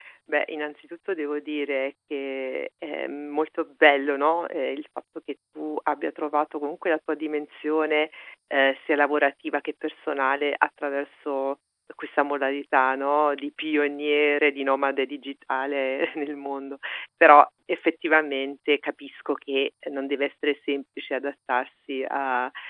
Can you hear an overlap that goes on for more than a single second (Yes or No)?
No